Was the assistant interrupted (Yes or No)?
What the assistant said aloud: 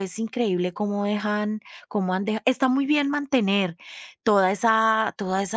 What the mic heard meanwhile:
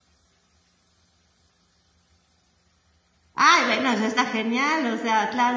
Yes